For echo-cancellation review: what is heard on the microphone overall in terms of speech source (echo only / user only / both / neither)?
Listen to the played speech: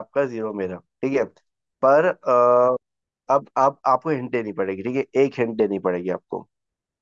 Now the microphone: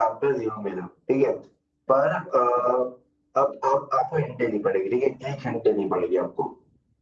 echo only